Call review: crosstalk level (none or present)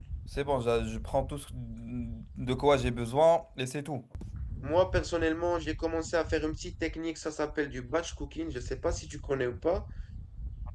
none